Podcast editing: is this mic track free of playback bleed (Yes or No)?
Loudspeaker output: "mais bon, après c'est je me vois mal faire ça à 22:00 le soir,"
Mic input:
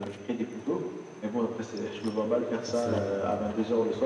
No